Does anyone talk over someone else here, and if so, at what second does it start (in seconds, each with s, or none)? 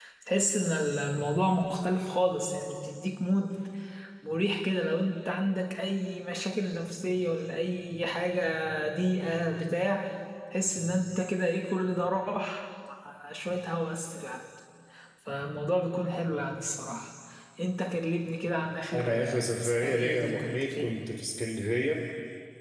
18.9 s